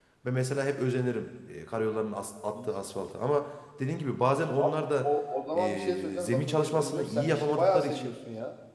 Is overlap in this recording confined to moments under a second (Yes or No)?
No